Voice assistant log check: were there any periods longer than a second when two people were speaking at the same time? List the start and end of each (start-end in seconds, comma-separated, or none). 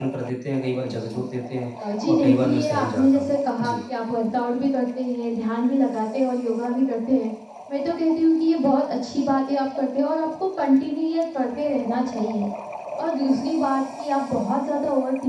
2.1-3.8